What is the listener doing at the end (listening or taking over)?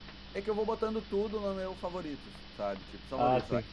listening